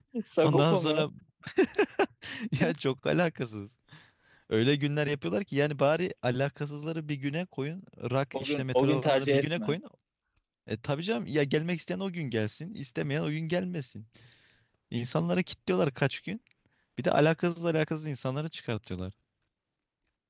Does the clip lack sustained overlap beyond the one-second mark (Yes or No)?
No